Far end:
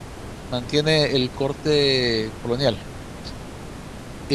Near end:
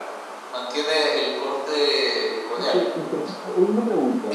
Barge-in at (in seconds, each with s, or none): 2.5 s